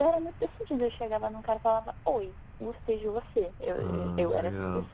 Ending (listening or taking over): taking over